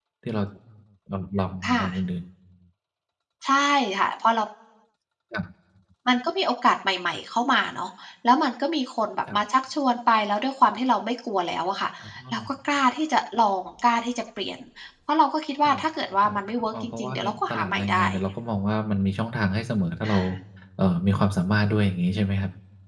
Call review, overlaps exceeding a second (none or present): present